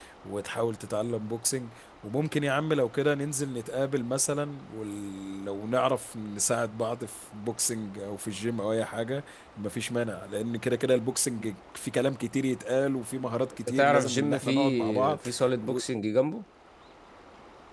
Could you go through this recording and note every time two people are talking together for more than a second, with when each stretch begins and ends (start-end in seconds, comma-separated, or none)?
13.7-15.3